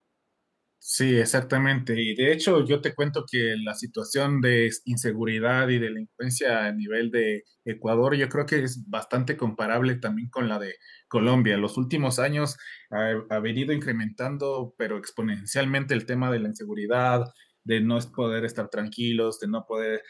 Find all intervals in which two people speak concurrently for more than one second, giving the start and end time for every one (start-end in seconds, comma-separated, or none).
none